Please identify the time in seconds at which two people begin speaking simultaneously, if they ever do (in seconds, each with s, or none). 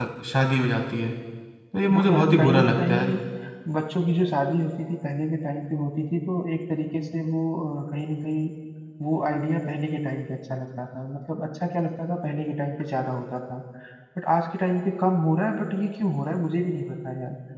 1.9 s